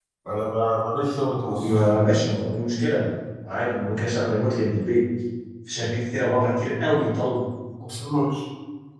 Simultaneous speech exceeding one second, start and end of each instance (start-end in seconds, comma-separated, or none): none